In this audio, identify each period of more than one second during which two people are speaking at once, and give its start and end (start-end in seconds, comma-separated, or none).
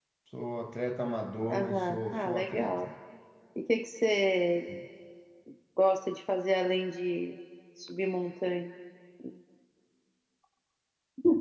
1.5-2.9